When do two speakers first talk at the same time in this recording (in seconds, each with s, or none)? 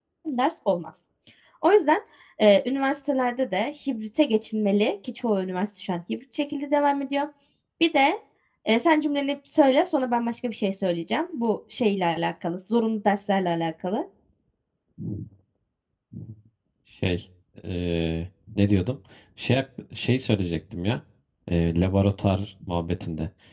none